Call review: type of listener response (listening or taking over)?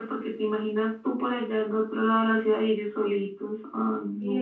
taking over